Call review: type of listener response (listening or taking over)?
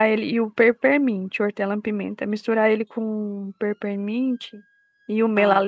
listening